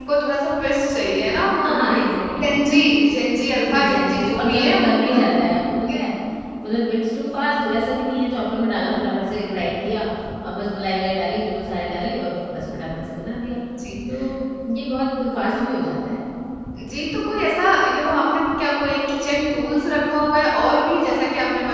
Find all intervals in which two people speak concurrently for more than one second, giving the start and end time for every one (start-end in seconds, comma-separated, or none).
3.6-5.2